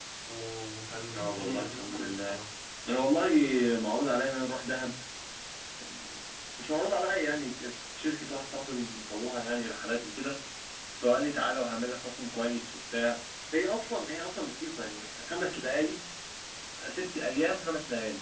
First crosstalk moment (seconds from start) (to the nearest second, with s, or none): 1 s